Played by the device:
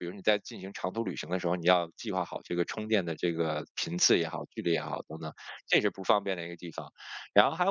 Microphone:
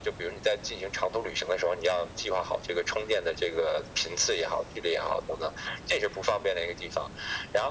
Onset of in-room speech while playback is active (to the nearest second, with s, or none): none